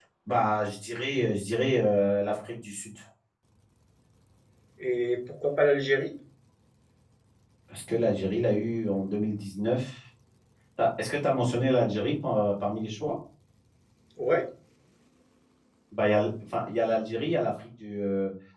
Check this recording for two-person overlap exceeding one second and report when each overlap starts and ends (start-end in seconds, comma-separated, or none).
none